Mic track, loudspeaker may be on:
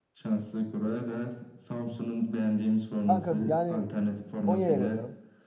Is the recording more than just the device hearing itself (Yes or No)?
Yes